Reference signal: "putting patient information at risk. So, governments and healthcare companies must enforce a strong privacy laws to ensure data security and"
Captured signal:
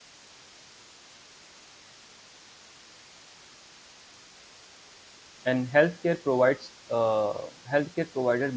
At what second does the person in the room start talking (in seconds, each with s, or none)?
5.4 s